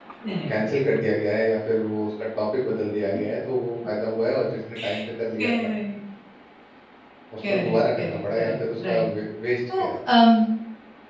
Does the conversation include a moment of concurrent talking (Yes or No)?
Yes